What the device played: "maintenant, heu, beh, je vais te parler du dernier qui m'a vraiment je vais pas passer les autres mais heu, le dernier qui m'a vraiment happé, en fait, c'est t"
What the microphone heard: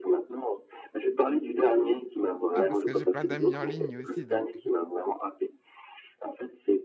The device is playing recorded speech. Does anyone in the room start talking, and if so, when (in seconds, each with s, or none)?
2.5 s